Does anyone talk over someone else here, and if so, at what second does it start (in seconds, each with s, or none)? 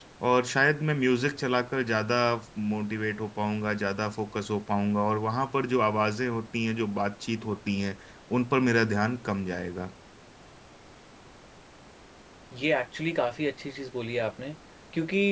none